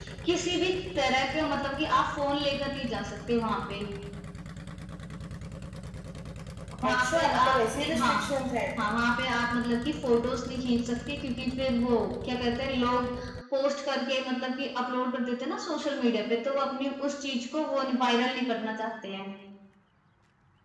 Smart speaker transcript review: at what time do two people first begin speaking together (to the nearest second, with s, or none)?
7 s